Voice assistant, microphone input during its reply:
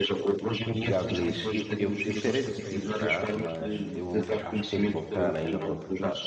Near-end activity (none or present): present